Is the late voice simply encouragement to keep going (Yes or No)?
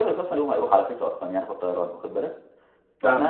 Yes